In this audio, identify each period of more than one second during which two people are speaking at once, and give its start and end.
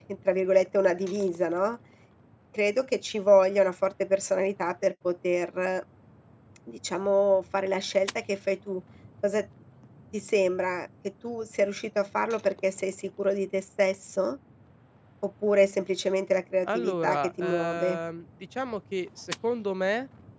16.6-18.0

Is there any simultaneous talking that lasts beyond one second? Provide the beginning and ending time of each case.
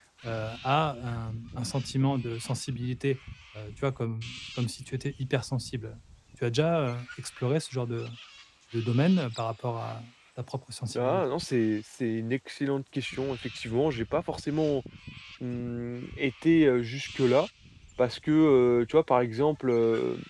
none

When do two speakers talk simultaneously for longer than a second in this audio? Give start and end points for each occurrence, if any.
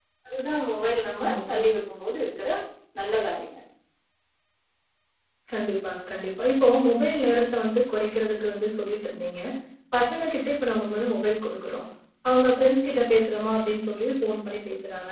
none

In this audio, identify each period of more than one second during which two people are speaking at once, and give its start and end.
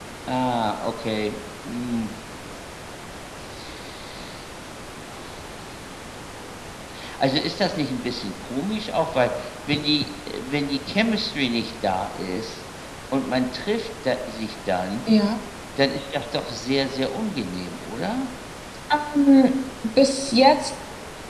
none

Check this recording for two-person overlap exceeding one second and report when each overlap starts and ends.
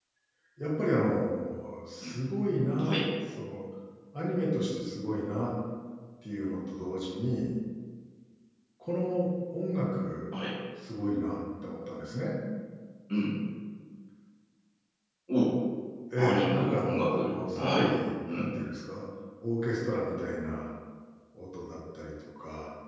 16.2-17.9

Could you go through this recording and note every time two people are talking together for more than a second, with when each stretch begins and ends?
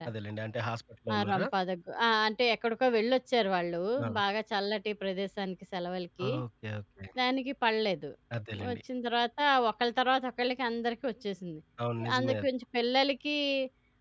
none

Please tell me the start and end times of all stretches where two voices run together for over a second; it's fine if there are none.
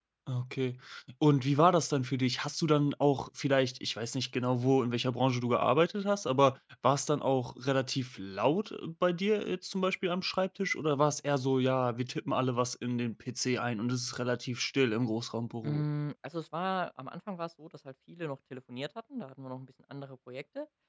none

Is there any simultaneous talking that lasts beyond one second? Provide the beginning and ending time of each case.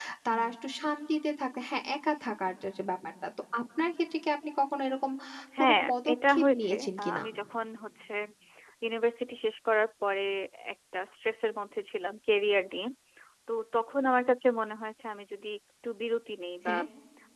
5.6-7.2

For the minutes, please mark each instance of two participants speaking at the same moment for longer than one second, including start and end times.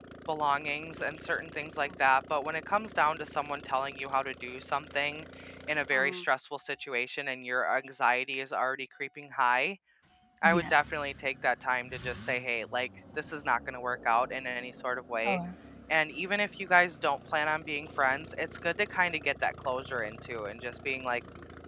none

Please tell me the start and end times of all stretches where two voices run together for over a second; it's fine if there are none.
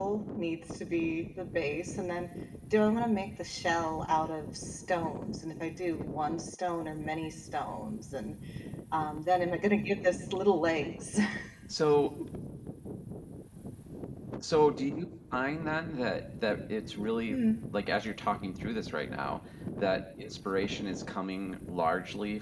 none

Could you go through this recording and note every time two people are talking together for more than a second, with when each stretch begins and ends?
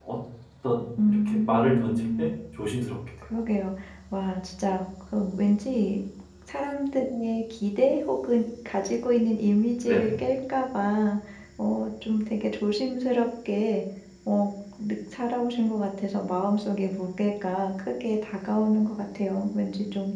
1.1-2.3

